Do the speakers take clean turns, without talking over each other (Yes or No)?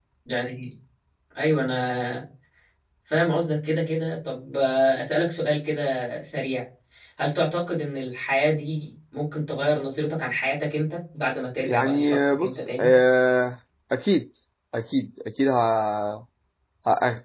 No